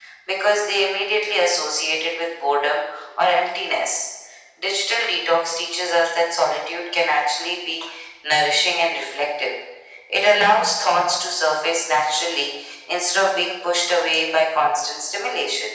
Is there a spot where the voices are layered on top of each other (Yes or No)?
No